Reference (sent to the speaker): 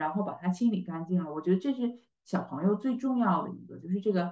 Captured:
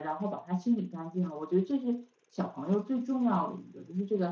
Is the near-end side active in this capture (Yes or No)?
No